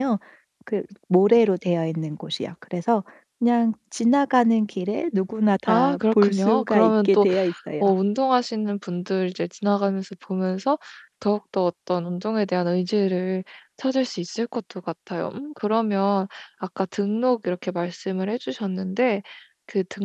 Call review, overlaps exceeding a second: present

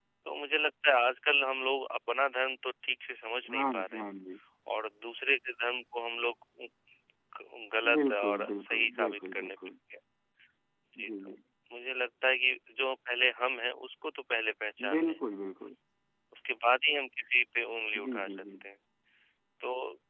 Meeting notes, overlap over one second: present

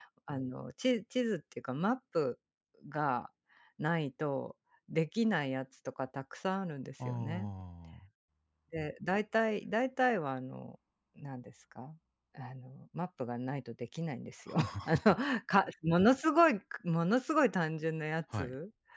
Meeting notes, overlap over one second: none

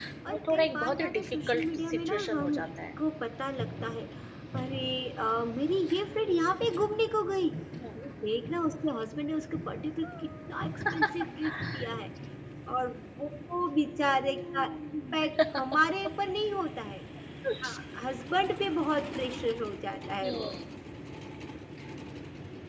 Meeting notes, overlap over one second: present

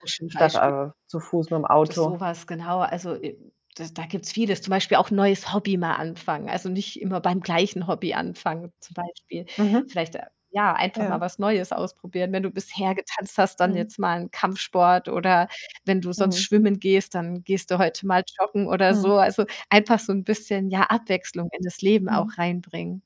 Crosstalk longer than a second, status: none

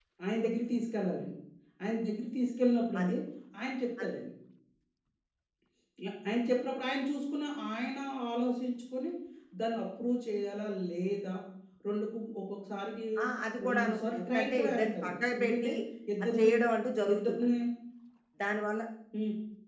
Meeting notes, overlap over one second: present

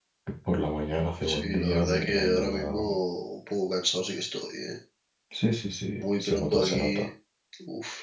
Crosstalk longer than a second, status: present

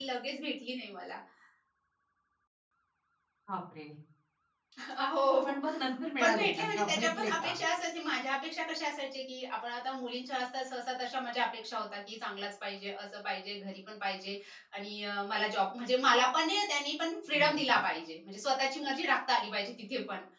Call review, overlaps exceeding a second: present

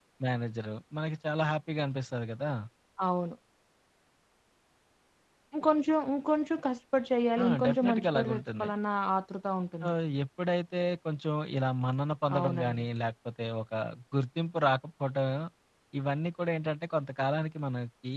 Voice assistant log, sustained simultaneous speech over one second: present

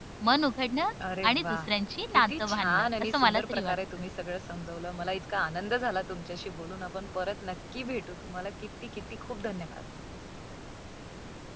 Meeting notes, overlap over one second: present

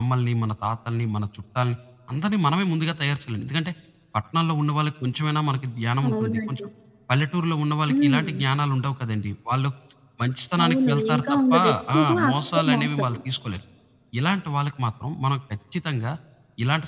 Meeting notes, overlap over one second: present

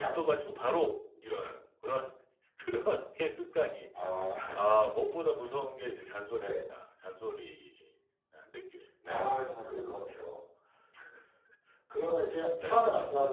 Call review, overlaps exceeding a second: none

